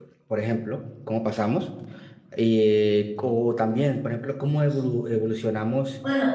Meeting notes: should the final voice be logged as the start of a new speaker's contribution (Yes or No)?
No